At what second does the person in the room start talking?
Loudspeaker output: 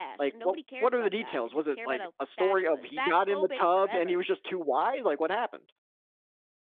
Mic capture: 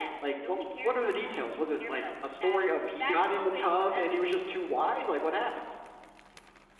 none

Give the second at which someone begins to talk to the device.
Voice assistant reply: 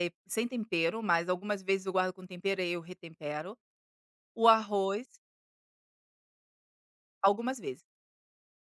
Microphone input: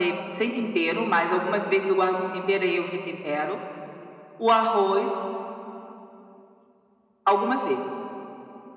none

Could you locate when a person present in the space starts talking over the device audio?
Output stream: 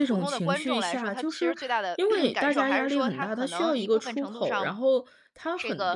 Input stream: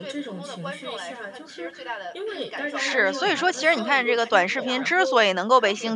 2.7 s

